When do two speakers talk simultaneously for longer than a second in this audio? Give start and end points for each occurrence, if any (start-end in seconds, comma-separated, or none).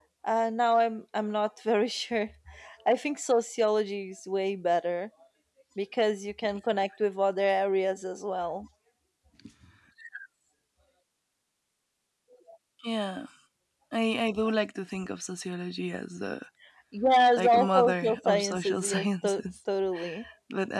17.4-19.4